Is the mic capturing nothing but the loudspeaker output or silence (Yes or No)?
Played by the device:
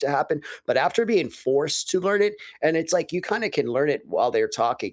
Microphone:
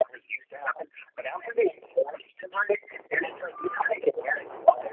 Yes